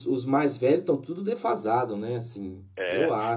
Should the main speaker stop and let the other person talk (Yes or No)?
Yes